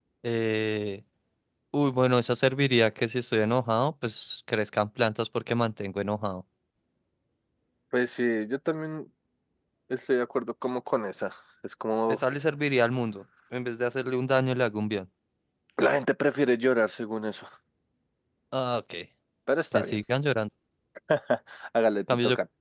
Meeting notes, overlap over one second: none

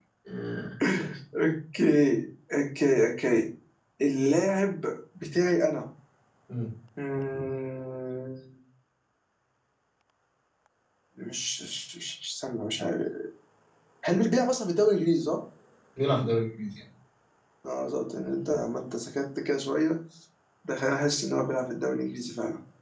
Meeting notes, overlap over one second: none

